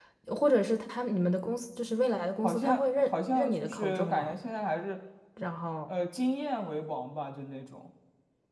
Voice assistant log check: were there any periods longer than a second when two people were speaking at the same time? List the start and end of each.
2.4-4.3

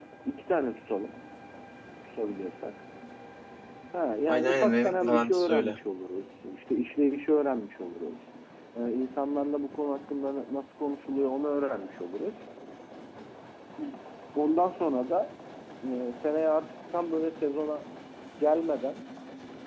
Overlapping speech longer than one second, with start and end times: 4.3-5.8

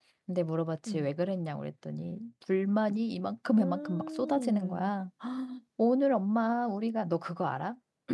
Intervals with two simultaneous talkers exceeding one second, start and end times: 3.6-4.9

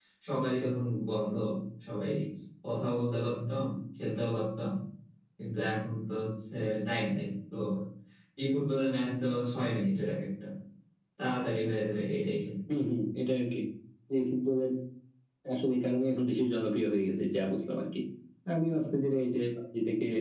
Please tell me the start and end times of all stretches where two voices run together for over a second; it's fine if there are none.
none

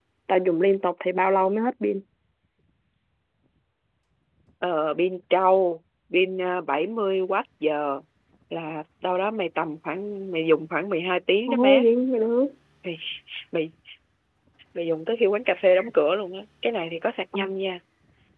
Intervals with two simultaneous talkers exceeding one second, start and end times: none

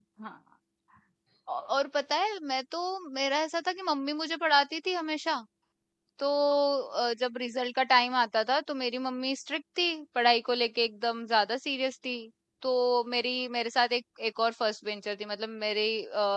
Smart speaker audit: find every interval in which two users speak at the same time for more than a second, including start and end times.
none

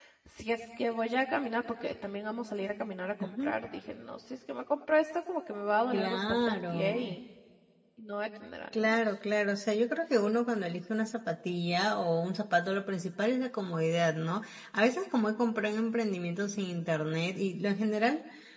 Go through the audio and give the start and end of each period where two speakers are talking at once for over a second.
5.9-7.2

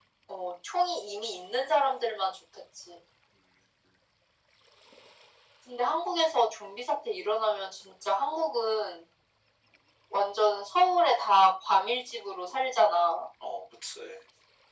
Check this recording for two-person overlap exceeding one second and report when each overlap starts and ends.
none

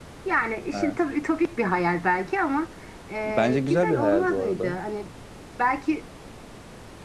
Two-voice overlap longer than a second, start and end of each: 3.2-4.8

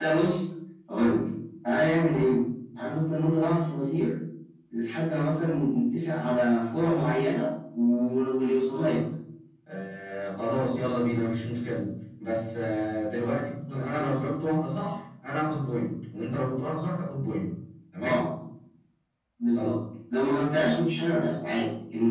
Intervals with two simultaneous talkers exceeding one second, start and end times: none

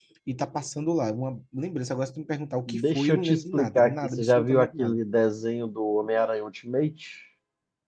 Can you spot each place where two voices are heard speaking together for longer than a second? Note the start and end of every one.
2.7-5.0

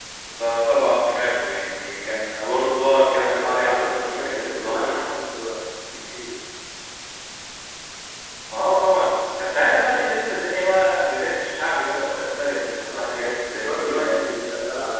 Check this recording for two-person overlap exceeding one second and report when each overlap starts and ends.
3.1-5.0, 12.8-14.3

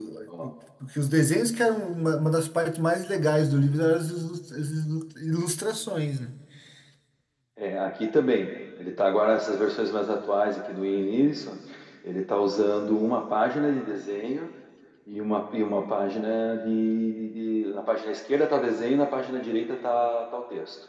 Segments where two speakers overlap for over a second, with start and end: none

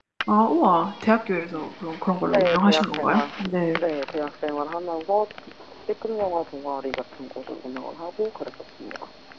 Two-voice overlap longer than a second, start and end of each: 2.2-3.5

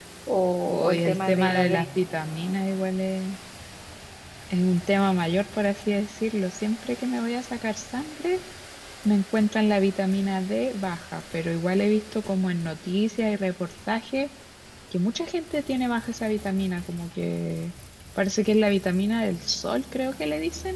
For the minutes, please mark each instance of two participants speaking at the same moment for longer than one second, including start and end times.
0.7-1.9

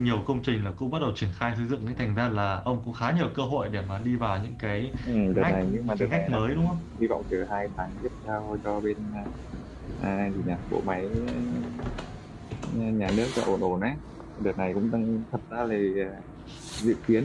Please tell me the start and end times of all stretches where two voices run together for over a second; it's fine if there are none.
5.3-6.7

